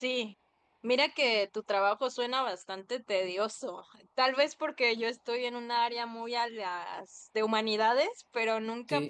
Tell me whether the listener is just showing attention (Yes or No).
Yes